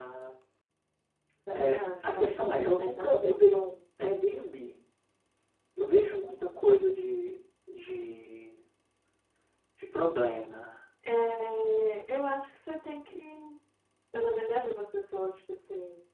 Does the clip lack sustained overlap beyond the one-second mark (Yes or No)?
No